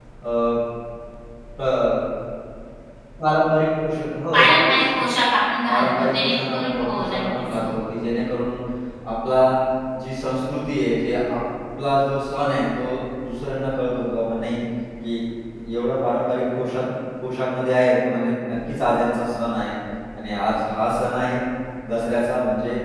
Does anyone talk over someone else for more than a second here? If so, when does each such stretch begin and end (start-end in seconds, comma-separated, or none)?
5.7-7.7